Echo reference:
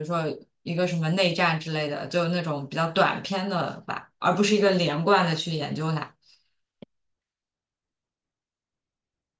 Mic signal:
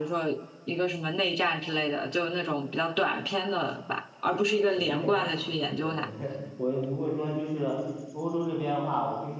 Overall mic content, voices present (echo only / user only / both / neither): both